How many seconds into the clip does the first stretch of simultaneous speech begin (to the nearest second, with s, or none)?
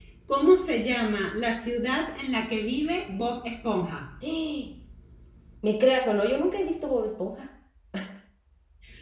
none